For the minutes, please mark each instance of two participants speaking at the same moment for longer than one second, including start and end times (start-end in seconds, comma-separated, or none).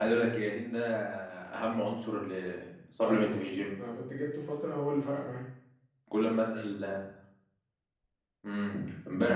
none